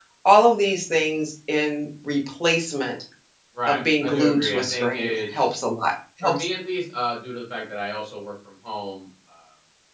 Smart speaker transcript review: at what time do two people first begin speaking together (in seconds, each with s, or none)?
3.7 s